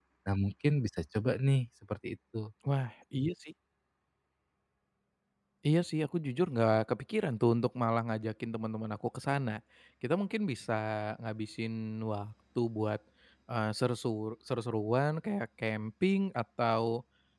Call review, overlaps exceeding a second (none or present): none